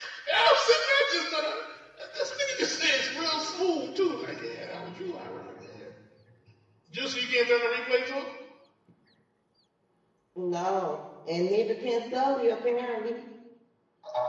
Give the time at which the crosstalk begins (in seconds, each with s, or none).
none